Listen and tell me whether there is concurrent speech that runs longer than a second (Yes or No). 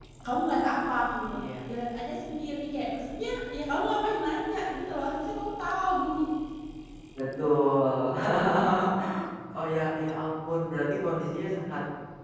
No